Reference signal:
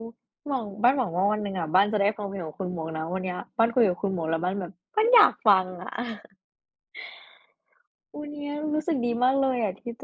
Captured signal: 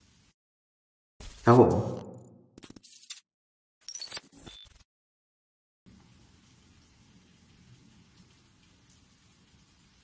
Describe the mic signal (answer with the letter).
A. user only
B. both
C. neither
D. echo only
A